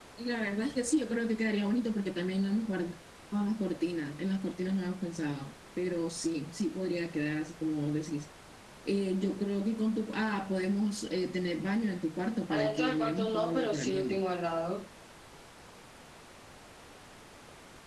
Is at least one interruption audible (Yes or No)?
Yes